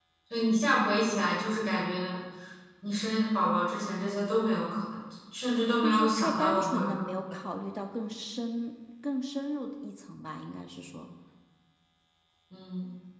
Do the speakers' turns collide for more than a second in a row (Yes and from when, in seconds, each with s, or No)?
Yes, from 5.8 s